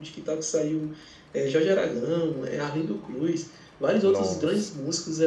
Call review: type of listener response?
listening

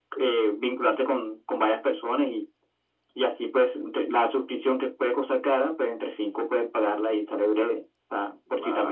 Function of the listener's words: taking over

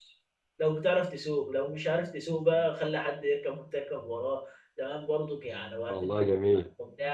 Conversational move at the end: listening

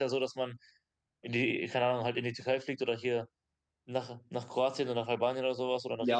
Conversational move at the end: taking over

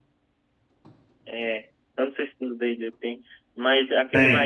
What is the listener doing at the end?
taking over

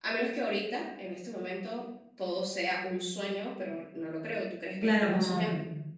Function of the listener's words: taking over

